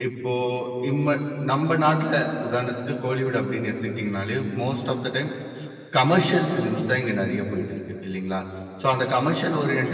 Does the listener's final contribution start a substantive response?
No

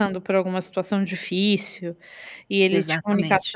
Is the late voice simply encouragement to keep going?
Yes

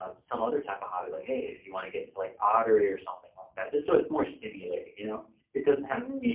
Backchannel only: Yes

